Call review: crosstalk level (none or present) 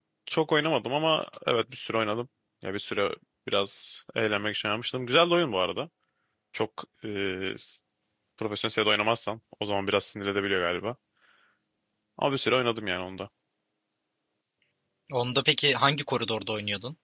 none